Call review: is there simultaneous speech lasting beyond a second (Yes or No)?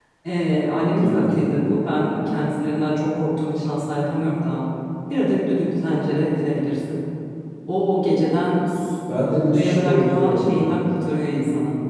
Yes